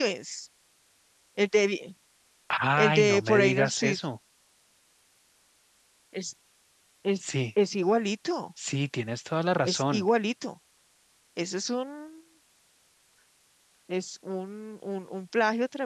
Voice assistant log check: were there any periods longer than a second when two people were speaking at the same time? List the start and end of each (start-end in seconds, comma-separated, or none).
2.8-4.0